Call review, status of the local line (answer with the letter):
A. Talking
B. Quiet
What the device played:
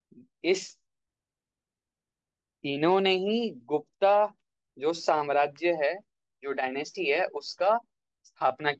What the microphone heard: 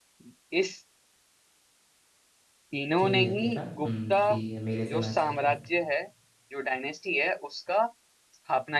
A